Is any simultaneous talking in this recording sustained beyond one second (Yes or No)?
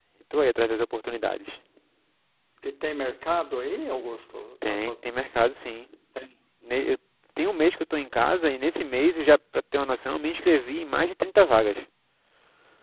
No